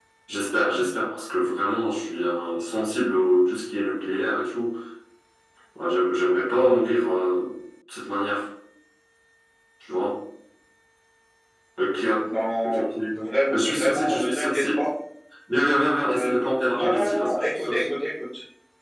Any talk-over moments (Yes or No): Yes